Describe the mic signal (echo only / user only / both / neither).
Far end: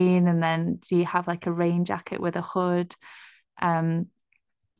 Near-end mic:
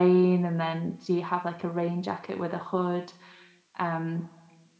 echo only